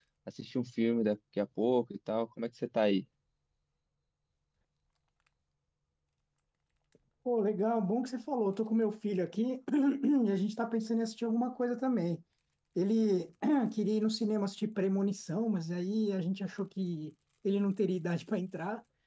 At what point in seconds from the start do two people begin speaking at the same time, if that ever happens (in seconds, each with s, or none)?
none